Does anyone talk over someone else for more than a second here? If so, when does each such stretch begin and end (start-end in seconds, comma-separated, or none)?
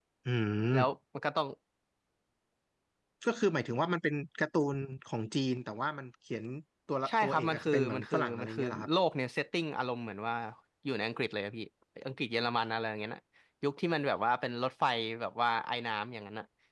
7.1-8.9